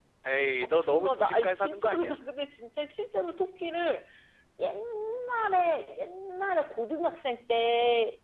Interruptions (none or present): present